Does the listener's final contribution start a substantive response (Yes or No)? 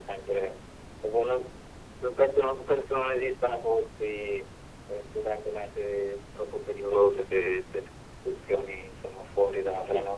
No